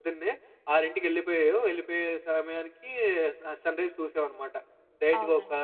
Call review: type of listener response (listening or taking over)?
listening